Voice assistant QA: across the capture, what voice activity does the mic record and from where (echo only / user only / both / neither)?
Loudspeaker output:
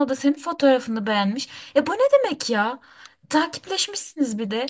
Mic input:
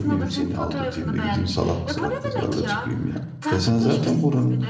both